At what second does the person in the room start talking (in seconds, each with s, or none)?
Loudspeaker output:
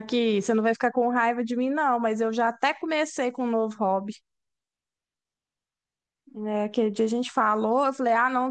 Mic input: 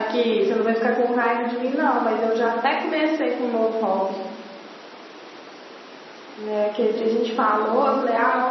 none